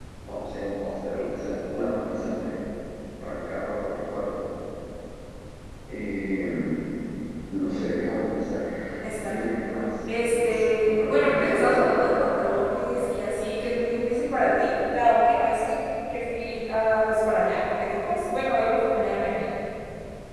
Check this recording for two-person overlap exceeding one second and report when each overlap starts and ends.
10.3-11.9

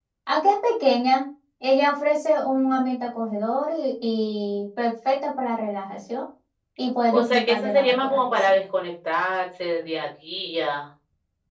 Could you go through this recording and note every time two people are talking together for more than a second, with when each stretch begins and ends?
7.1-8.5

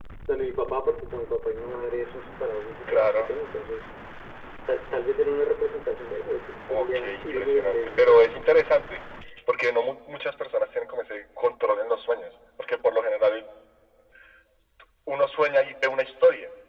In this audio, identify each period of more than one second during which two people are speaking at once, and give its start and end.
6.7-8.2

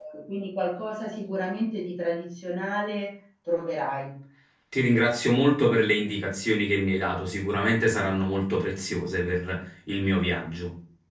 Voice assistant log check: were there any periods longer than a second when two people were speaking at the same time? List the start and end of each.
none

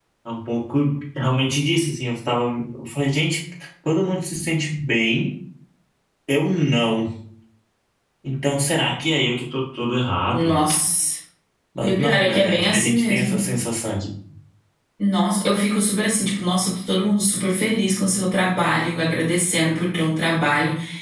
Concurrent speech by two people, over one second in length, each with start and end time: 11.8-13.4

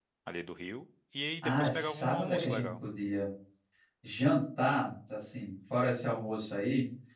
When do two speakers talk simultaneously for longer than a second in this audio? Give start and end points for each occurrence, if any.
1.4-2.7

